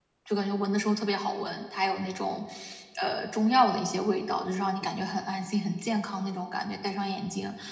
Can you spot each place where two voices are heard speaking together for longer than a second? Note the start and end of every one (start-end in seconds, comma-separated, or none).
none